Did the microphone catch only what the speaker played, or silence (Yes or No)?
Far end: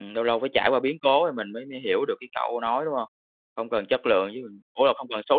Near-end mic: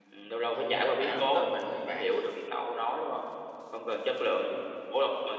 No